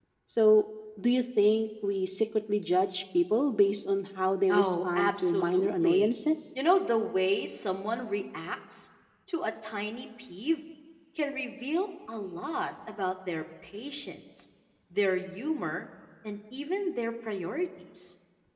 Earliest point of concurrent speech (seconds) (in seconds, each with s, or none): 4.5 s